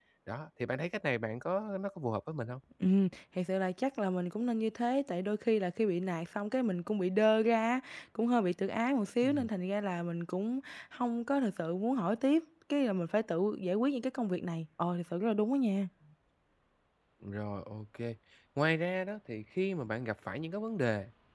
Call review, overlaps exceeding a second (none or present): none